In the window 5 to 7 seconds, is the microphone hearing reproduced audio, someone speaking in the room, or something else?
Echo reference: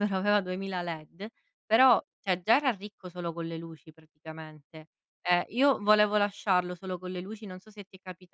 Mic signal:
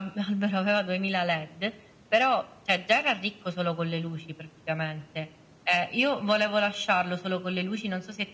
echo only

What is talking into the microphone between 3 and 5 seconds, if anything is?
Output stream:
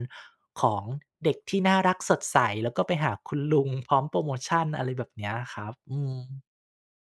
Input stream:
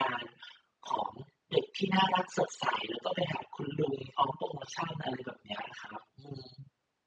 echo only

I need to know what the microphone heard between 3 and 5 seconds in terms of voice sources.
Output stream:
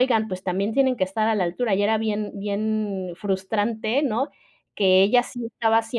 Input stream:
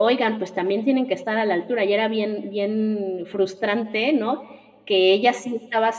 echo only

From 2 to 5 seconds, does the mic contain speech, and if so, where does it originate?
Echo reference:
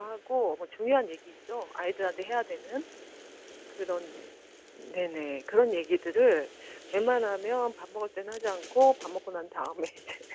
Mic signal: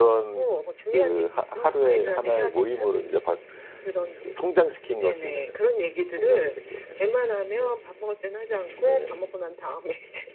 both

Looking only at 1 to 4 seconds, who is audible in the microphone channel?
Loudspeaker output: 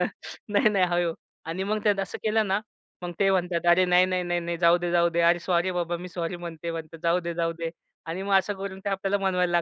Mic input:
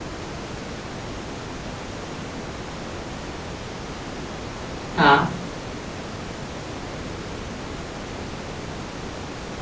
neither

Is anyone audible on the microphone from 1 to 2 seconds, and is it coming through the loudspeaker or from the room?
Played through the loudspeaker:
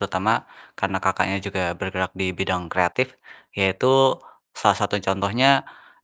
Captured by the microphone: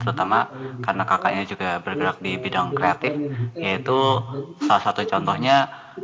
both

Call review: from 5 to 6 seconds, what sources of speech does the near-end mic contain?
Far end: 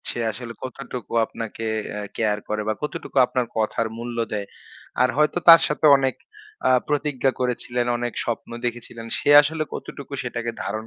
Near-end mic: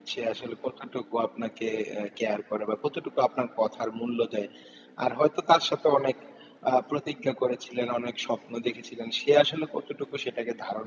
echo only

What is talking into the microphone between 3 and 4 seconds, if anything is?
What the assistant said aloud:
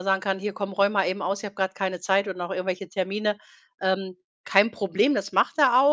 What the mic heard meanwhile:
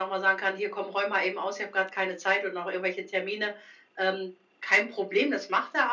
echo only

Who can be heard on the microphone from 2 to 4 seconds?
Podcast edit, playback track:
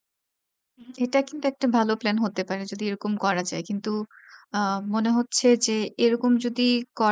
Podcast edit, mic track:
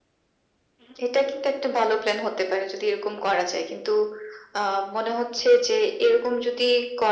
echo only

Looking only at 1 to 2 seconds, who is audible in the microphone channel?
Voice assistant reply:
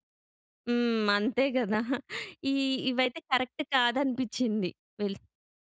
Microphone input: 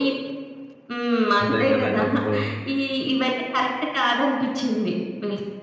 both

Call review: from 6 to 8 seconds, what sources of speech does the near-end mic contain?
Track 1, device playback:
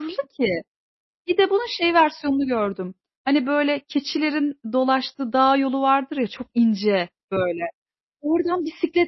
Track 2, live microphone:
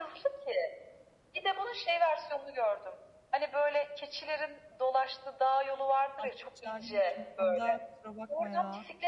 both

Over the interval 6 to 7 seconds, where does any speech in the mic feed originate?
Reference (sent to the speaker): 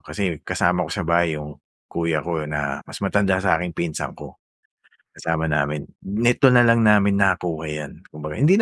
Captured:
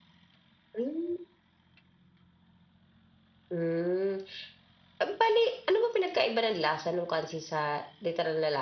user only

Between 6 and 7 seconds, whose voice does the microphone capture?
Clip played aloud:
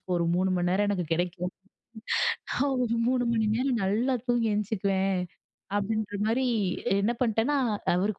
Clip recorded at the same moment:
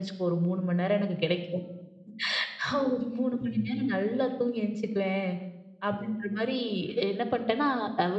echo only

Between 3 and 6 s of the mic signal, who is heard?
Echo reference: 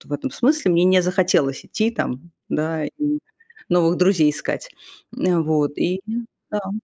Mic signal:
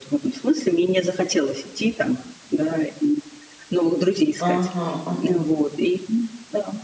both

